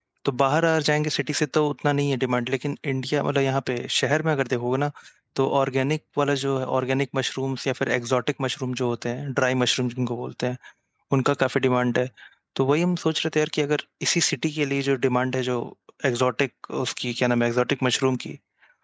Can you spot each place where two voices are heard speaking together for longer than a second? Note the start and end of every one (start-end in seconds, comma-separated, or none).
none